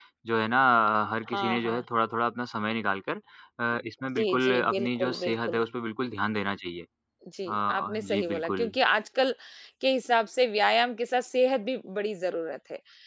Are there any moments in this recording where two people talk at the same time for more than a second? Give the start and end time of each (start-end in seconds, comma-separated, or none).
4.2-5.6, 7.5-8.7